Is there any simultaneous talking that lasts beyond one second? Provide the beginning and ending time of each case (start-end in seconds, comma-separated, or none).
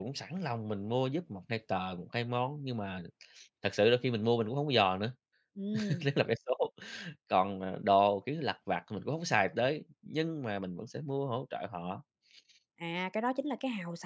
none